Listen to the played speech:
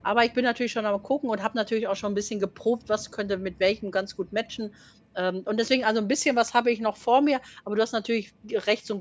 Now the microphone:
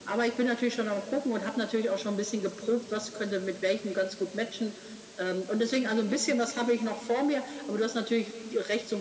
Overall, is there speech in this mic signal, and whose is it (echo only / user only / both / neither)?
echo only